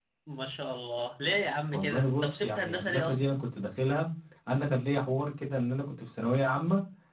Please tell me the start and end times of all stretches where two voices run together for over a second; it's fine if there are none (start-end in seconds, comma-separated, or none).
1.7-3.2